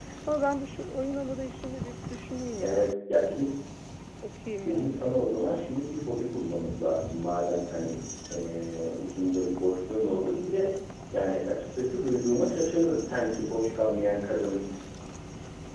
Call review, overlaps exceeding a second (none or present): none